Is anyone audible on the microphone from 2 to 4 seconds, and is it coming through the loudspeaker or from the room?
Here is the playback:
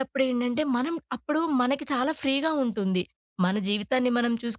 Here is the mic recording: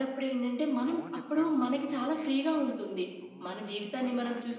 both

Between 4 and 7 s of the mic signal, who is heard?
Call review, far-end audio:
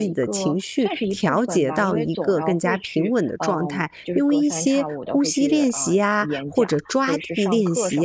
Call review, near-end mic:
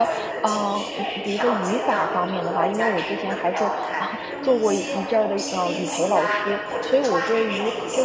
both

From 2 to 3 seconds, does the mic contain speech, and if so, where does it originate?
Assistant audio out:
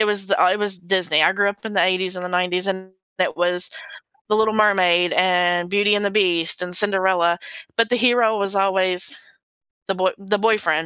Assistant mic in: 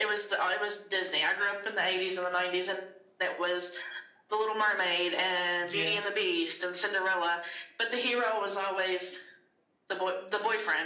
echo only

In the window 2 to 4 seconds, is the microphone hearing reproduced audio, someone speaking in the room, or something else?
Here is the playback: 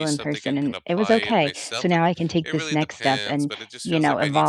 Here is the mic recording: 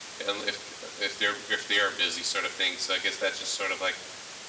user only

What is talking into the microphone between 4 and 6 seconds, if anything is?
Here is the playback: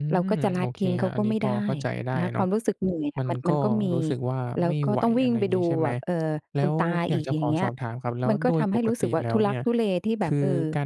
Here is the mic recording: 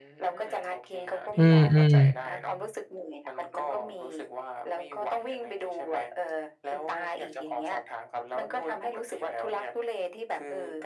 echo only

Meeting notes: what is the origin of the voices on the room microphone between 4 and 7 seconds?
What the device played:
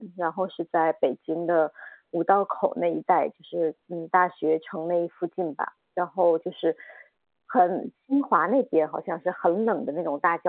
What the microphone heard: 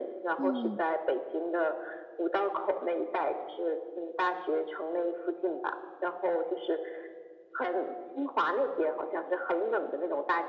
echo only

